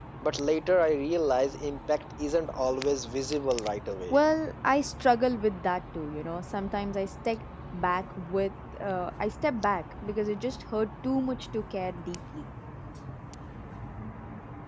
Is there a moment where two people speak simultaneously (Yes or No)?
No